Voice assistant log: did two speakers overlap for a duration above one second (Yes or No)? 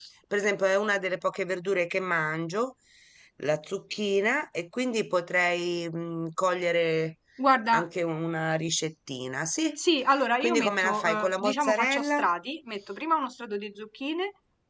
Yes